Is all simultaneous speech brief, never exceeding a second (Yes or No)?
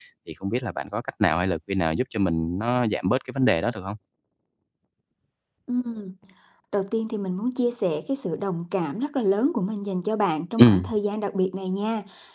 Yes